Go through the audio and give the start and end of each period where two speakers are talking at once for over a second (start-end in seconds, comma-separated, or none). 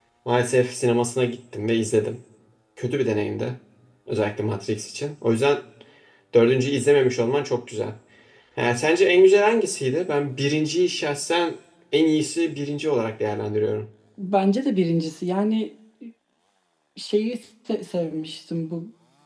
none